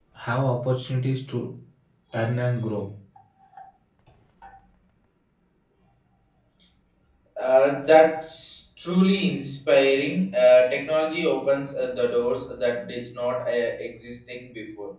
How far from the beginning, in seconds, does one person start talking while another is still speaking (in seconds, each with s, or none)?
none